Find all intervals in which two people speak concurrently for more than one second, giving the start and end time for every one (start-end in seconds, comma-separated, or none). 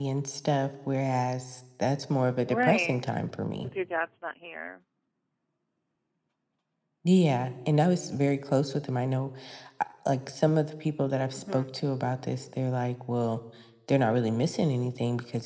none